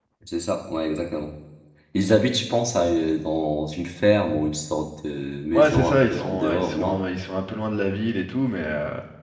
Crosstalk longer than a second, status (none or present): present